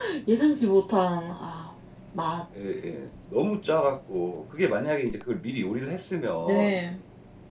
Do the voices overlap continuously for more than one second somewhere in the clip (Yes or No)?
No